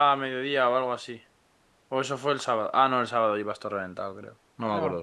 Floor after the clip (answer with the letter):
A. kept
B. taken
B